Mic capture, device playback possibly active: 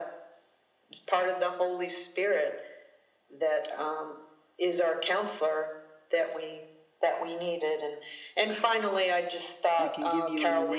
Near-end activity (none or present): present